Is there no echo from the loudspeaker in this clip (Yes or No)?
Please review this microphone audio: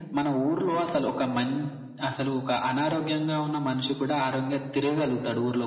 No